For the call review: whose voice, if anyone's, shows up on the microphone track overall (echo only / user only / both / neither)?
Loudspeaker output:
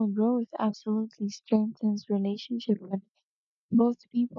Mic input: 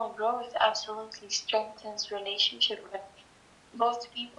echo only